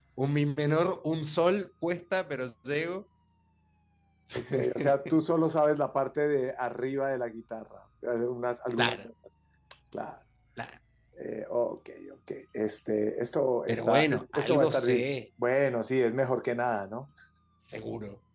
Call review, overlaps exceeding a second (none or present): present